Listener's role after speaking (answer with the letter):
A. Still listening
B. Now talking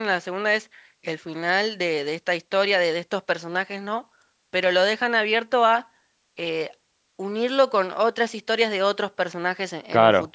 B